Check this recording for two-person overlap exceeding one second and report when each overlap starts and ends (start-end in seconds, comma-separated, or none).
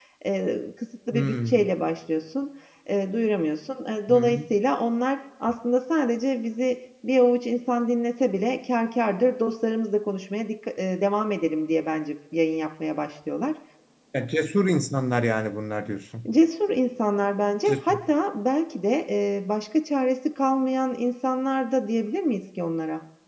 none